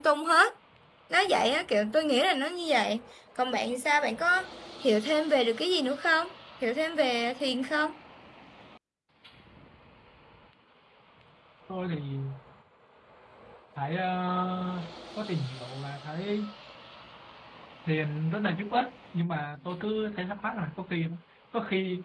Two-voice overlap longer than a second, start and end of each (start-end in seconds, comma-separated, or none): none